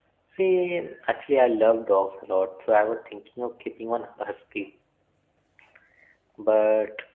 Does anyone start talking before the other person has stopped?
No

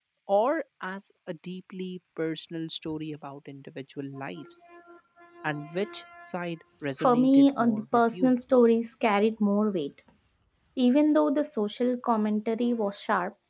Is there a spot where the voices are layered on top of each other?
Yes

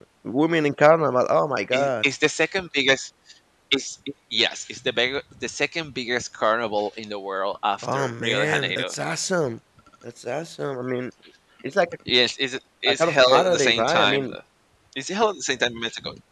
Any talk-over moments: Yes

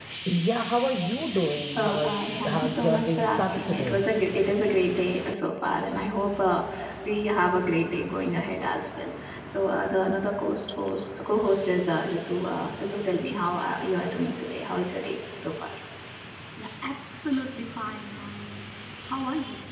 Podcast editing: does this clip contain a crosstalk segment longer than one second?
Yes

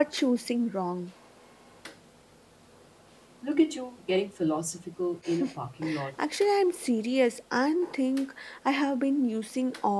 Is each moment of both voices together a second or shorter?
Yes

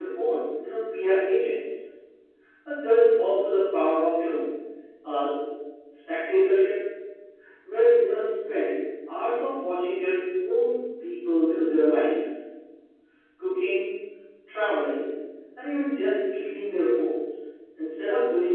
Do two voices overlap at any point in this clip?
No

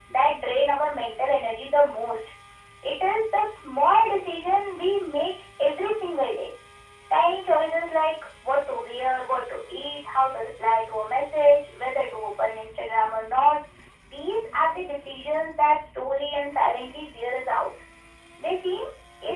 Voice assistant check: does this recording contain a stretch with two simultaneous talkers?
No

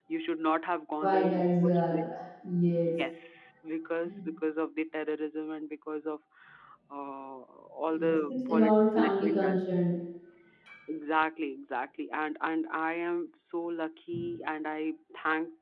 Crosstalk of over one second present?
Yes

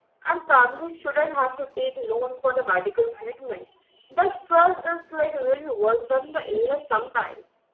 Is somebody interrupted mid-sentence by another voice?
No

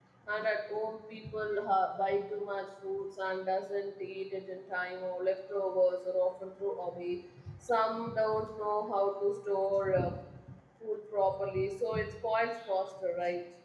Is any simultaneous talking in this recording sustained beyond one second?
No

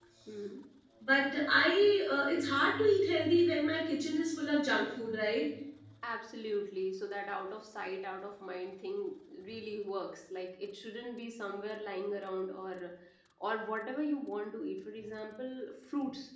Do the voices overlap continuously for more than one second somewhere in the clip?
No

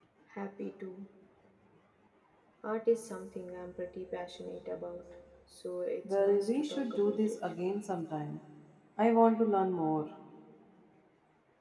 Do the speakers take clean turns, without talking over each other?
No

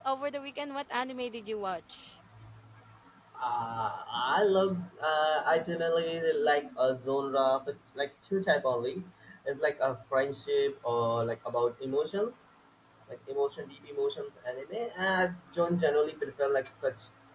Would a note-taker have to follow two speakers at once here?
No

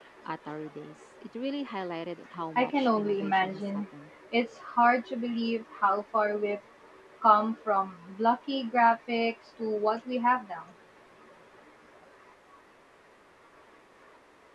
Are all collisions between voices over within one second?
No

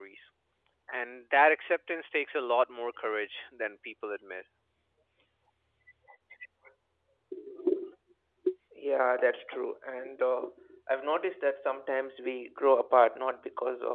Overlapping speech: No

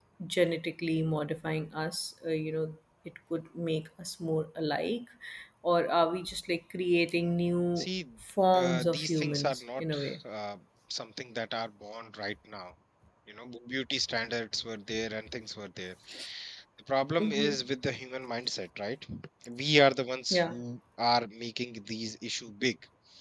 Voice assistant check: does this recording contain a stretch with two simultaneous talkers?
Yes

